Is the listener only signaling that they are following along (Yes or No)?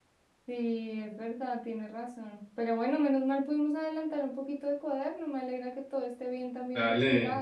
No